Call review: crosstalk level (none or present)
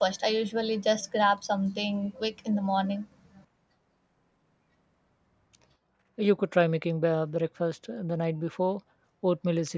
none